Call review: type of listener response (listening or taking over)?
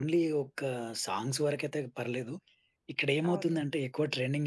listening